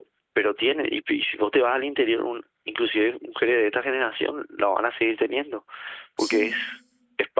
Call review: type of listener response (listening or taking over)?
listening